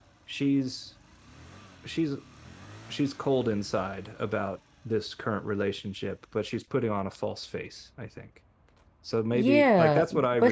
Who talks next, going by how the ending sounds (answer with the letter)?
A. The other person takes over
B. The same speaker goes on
A